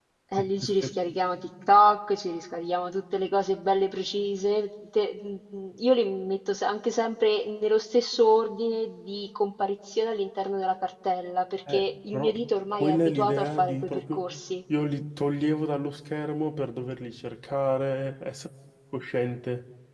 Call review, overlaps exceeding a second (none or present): present